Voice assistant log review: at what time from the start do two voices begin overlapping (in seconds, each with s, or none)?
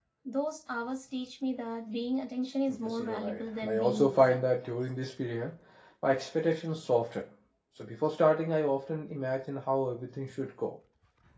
2.8 s